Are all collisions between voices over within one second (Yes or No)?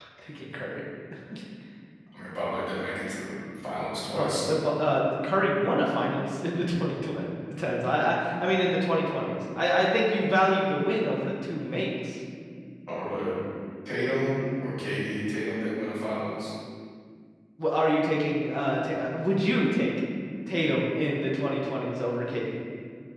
Yes